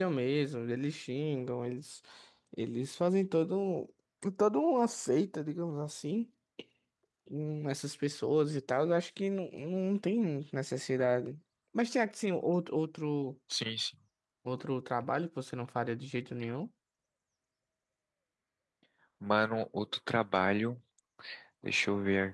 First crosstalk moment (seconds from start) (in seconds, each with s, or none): none